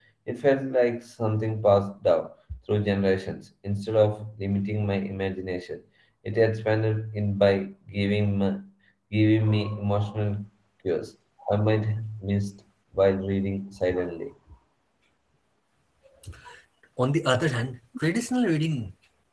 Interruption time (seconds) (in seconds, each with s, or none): none